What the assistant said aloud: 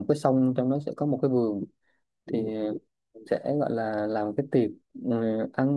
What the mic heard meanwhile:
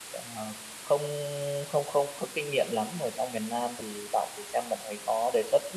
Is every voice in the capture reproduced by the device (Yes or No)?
No